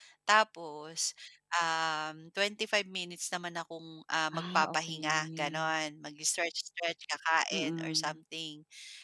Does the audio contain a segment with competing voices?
Yes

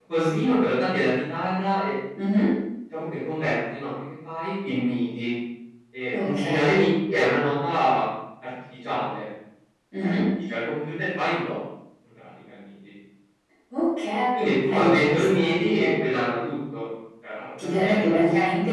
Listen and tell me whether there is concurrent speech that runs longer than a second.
Yes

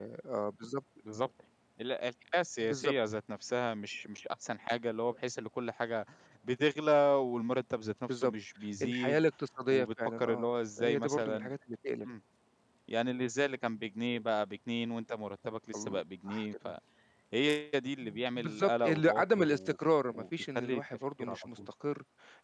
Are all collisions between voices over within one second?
No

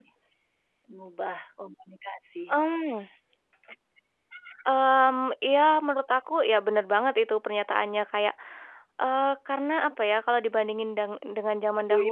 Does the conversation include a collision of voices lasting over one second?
No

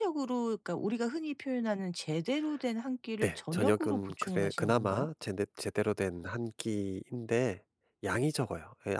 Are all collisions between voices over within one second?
No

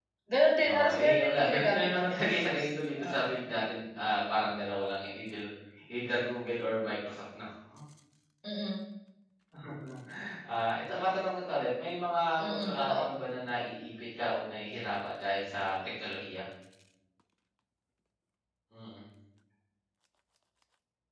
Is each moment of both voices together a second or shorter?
No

